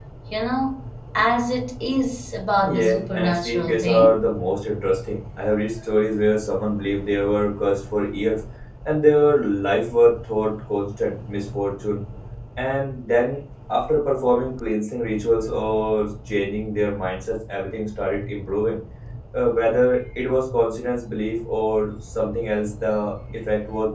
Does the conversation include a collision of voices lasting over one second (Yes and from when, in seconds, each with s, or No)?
Yes, from 2.6 s